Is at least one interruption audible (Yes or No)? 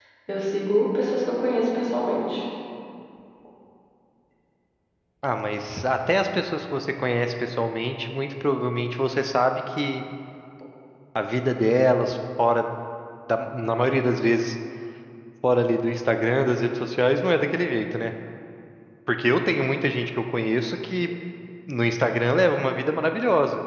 No